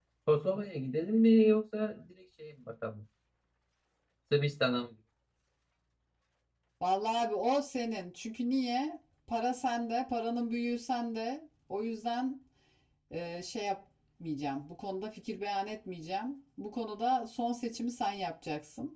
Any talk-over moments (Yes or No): No